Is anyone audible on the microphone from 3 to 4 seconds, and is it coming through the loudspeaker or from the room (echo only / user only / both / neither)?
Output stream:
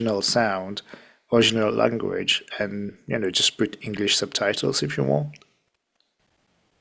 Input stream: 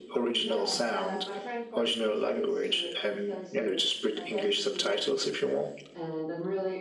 both